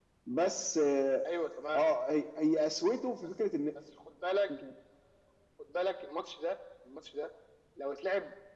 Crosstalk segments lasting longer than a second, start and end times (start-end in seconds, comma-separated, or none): none